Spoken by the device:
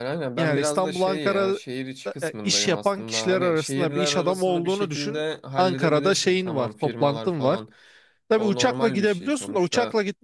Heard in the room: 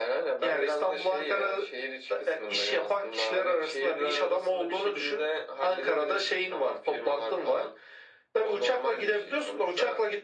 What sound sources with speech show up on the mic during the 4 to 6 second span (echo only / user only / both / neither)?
echo only